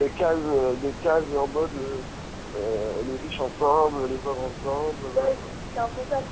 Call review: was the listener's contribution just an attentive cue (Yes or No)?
No